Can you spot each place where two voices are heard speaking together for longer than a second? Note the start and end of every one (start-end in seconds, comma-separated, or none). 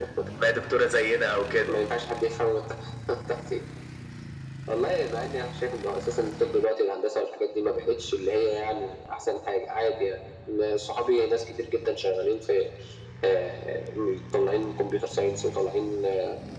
none